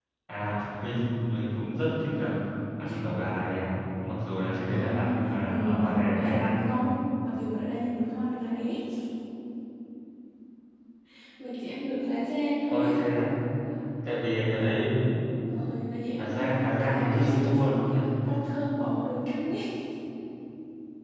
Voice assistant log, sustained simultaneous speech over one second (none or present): present